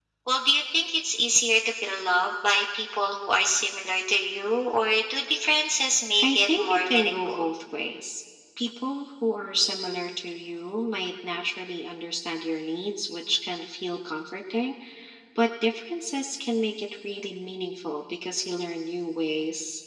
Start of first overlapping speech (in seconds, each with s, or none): 6.2 s